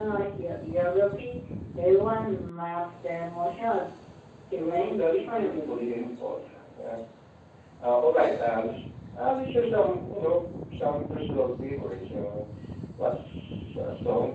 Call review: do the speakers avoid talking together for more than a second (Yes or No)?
No